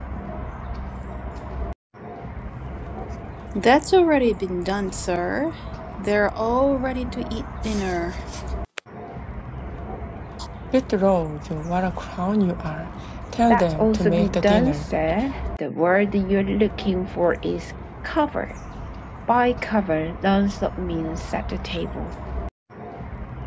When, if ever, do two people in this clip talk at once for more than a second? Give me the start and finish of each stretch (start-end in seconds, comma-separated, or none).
13.5-14.8